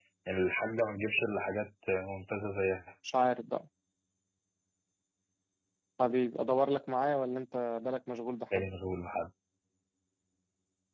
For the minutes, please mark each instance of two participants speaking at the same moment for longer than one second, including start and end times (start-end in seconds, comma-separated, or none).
none